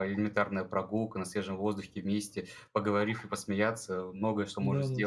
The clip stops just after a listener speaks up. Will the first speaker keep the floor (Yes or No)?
No